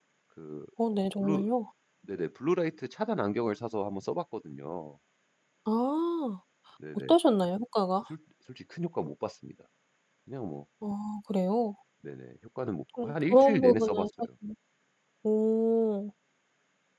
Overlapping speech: Yes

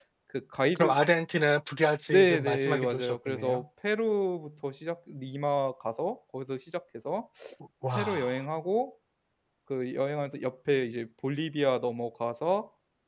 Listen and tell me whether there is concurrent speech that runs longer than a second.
Yes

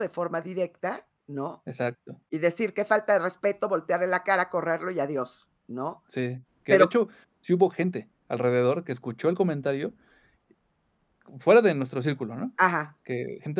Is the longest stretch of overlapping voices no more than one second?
Yes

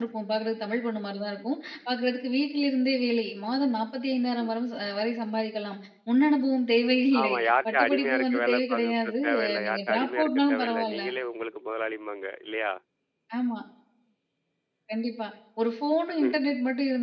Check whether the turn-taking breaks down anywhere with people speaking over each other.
Yes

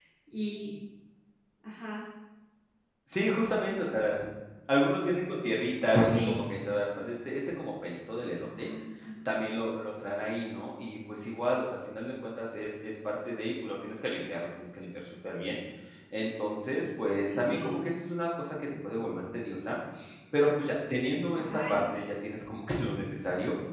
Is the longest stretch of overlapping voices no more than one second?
Yes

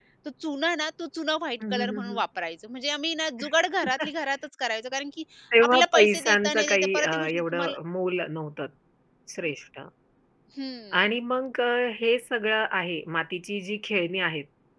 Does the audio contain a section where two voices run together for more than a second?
Yes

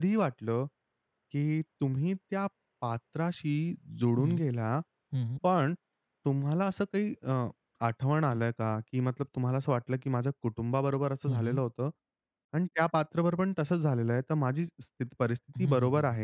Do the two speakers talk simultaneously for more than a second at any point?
No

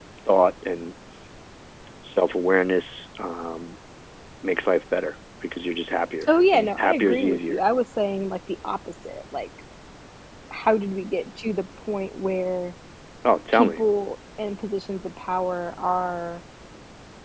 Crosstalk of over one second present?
Yes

